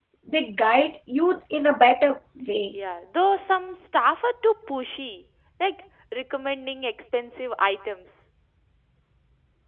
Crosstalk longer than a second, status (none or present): none